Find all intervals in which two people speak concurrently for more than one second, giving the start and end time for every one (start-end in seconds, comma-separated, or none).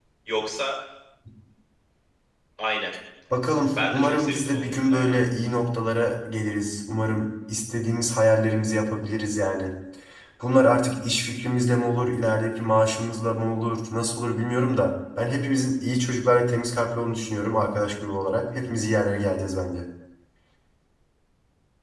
3.8-5.2